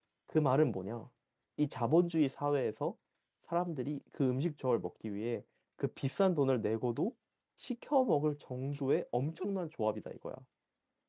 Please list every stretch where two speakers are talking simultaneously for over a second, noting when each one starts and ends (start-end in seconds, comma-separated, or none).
none